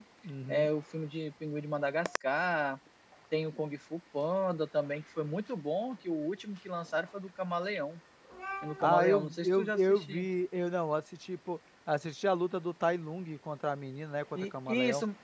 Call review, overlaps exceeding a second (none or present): present